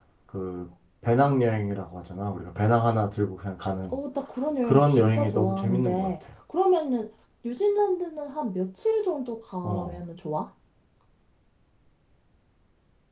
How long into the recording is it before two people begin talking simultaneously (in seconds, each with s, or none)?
4.6 s